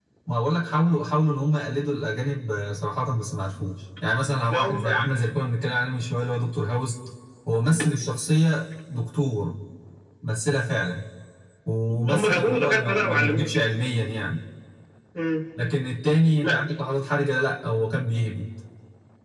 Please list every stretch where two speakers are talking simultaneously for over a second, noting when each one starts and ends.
12.1-13.5

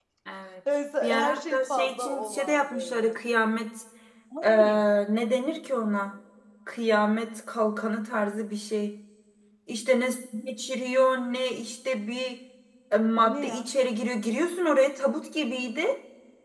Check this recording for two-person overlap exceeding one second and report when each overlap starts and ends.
1.0-3.2

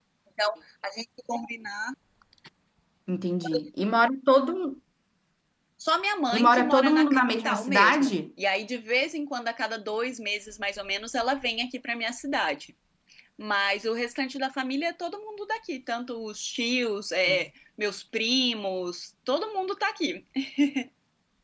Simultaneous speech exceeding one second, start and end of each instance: 6.4-8.1

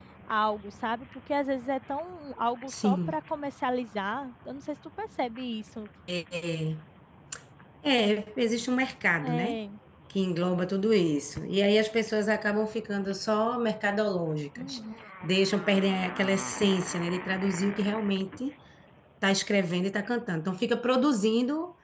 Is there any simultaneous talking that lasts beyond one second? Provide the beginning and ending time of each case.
none

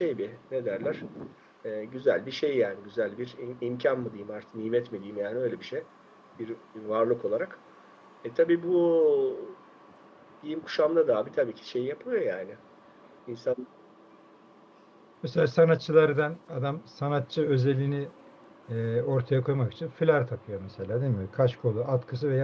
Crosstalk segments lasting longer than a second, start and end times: none

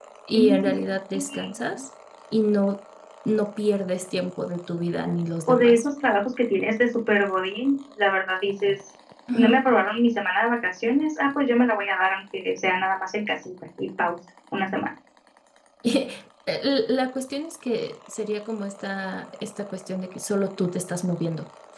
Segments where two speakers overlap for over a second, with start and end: none

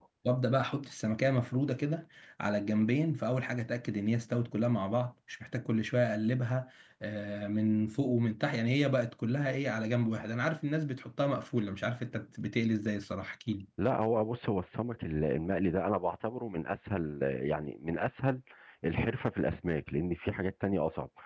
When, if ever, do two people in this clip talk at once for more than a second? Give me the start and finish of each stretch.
none

